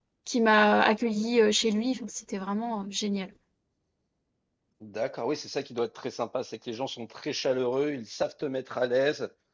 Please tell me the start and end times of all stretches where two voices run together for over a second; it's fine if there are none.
none

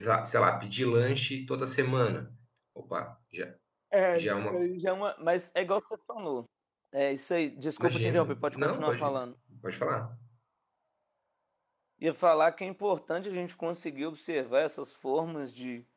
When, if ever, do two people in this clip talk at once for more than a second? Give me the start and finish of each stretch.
7.8-9.3

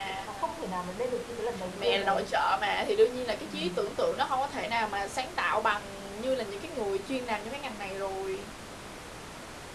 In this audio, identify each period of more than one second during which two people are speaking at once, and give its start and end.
none

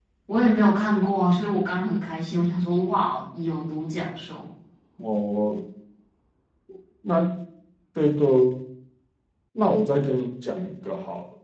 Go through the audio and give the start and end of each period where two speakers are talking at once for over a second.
none

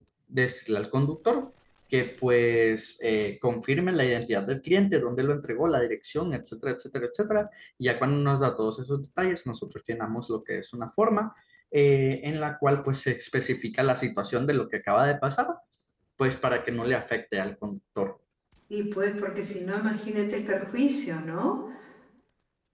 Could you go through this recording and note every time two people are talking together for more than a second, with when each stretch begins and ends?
none

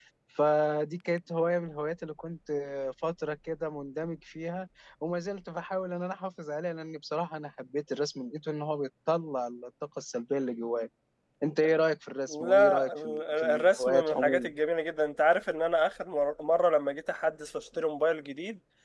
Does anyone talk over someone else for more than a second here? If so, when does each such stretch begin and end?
12.3-14.5

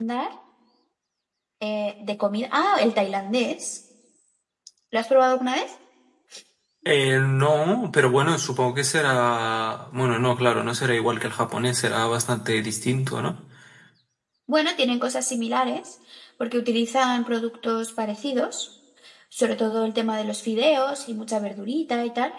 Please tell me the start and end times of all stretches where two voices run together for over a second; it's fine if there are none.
none

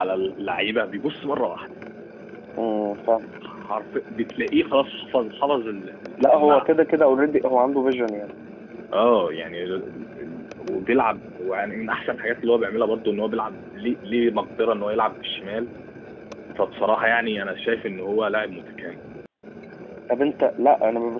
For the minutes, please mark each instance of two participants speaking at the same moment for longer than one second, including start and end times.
none

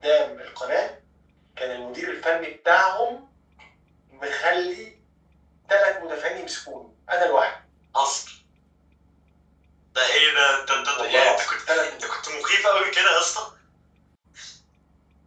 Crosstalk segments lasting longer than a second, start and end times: 10.6-12.1

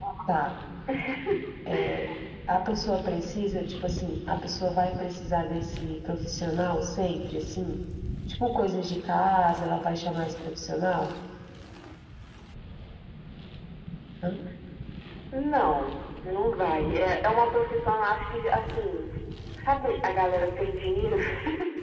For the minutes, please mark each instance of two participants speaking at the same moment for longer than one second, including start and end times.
none

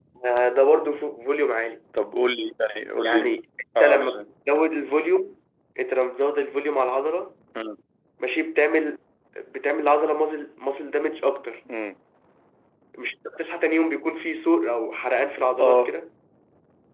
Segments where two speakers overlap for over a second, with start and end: none

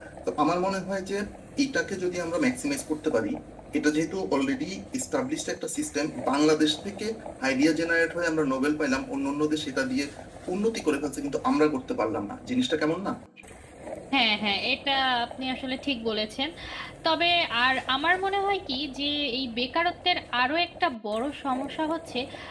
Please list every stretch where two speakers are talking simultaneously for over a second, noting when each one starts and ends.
none

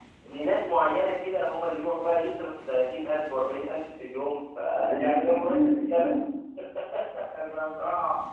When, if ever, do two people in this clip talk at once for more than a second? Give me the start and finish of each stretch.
4.8-6.1

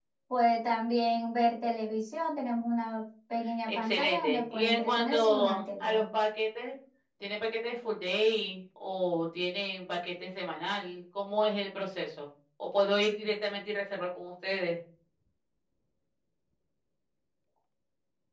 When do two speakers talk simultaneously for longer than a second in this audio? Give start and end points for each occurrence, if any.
3.7-6.0

